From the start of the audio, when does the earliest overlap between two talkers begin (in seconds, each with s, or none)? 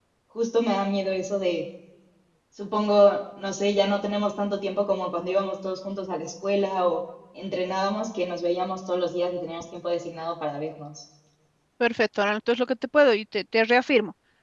none